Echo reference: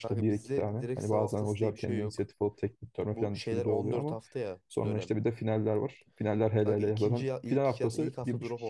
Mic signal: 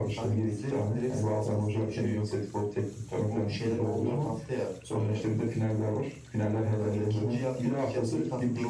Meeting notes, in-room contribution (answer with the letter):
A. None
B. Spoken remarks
A